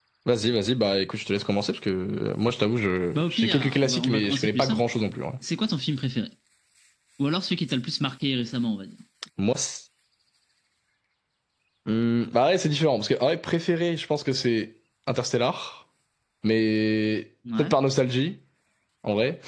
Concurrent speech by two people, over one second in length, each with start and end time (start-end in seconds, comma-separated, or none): 3.1-5.0